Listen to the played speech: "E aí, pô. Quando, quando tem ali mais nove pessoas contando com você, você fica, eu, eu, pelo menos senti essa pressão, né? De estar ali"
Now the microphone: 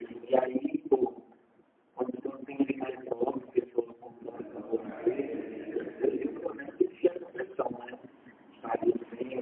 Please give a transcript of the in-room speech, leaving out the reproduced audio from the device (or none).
os negócios com a galera, e às vezes você